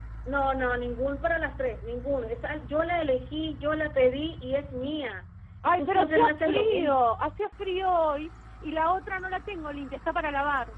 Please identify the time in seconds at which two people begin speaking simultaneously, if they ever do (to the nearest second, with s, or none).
6 s